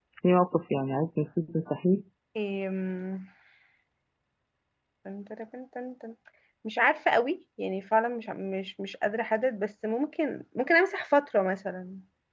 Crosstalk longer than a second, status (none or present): none